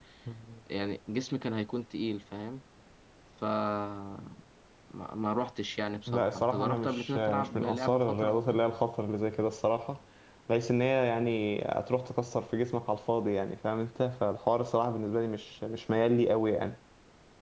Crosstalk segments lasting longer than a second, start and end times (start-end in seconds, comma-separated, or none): 6.1-8.6